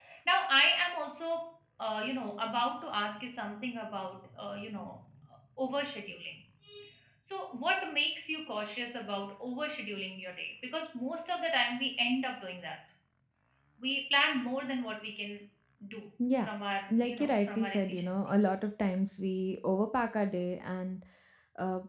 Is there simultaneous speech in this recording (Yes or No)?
Yes